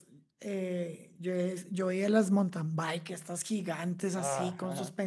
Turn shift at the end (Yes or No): No